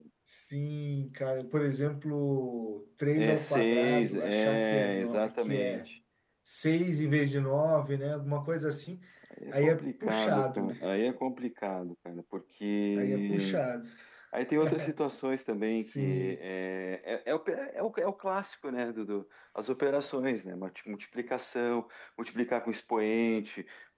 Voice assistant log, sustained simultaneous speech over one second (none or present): present